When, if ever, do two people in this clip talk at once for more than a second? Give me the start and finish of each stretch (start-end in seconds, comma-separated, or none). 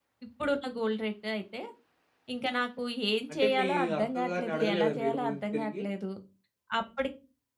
3.3-5.8